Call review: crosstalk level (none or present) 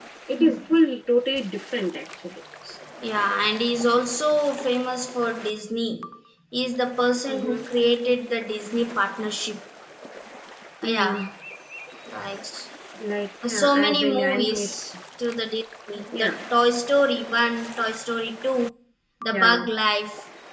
present